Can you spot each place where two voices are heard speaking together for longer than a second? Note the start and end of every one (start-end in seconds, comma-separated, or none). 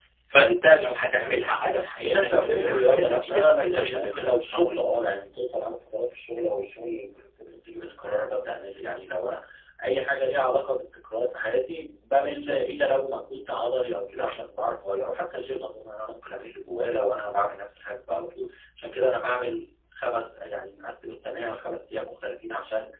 2.0-4.6